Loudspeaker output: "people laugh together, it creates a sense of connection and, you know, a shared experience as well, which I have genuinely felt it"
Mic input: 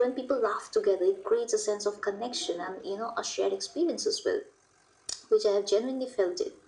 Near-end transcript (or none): none